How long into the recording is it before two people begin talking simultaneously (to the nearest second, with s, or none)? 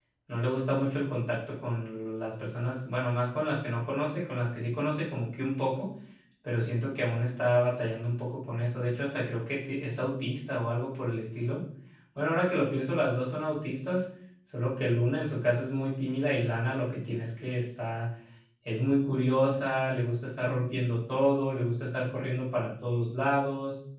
none